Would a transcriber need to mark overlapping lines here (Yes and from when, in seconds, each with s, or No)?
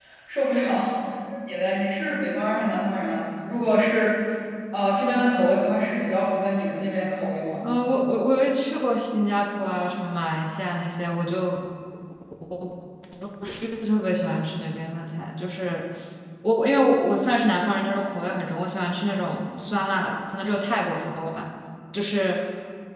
No